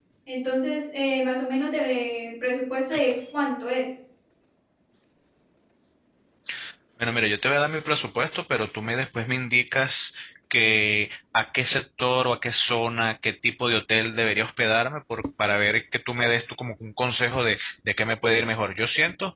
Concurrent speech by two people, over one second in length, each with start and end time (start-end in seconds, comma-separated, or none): none